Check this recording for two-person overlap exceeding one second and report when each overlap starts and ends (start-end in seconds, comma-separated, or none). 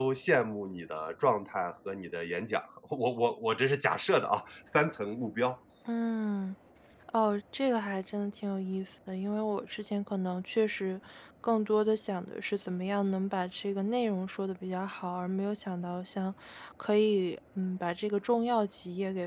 none